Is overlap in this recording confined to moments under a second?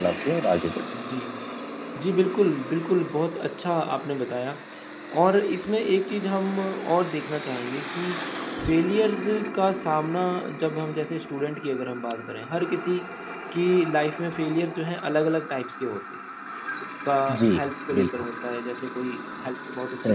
Yes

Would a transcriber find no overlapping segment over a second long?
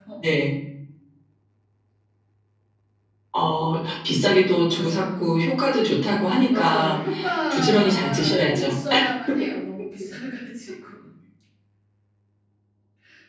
No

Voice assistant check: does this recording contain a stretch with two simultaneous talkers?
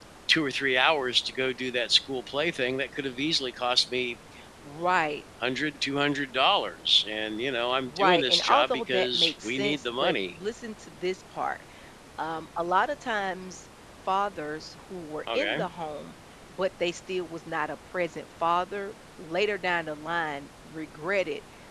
Yes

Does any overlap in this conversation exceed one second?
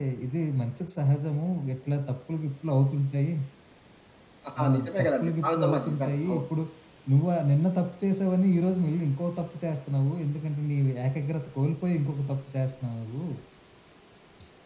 Yes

